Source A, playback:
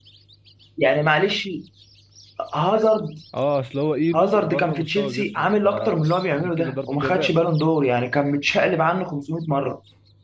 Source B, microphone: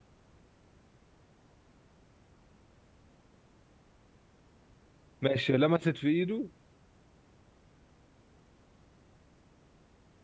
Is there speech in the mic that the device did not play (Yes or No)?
Yes